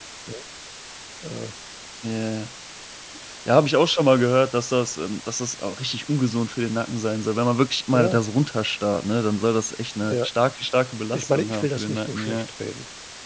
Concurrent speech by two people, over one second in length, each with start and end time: 11.1-12.5

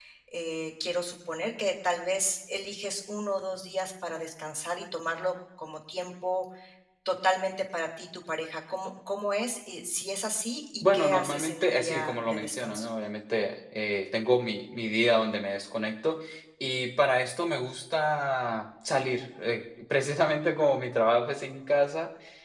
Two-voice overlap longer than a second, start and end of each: 10.8-12.9

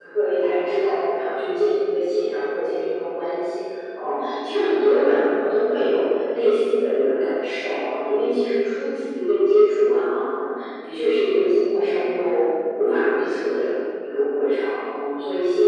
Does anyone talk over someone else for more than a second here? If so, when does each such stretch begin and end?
none

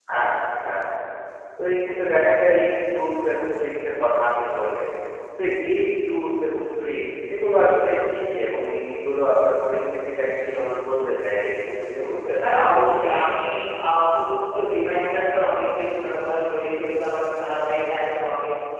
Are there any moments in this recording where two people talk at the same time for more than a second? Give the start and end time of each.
none

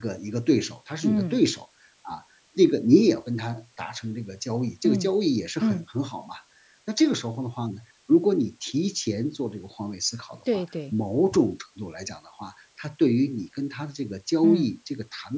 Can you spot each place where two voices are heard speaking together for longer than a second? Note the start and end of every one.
none

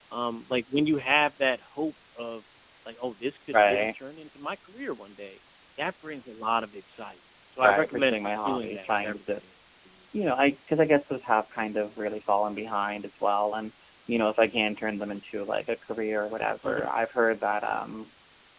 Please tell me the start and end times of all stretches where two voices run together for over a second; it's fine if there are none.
7.6-9.4

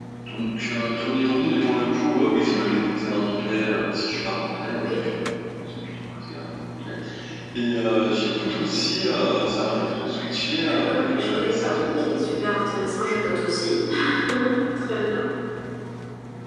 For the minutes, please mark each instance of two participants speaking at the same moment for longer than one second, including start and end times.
10.6-12.2

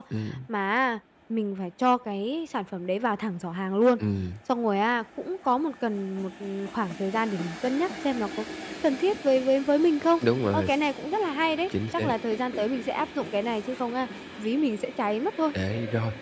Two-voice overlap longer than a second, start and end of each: none

